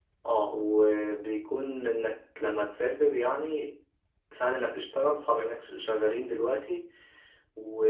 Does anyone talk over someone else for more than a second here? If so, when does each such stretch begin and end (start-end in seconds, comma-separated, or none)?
none